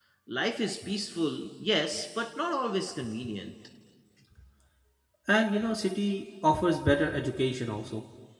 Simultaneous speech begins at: none

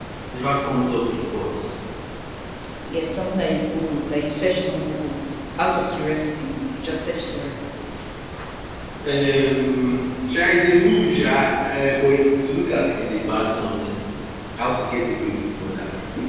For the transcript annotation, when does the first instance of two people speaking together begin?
none

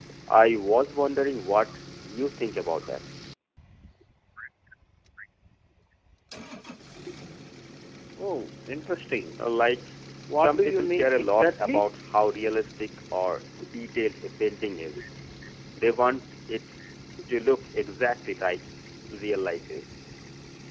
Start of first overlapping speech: 10 s

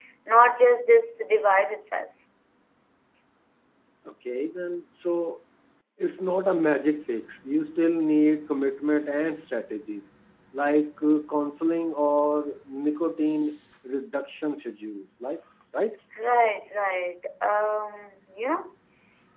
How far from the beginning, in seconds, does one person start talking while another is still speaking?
none

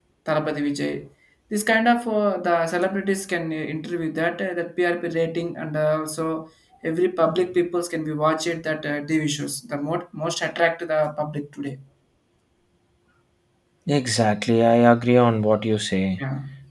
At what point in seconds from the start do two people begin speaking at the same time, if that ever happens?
none

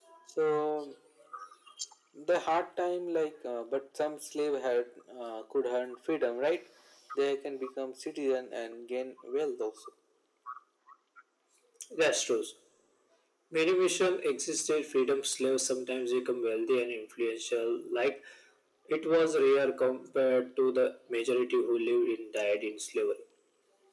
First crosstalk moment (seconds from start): none

